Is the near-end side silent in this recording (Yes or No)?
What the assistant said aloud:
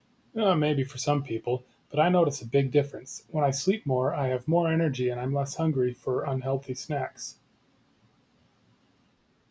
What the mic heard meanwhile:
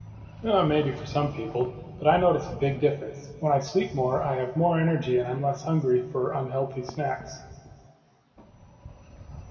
Yes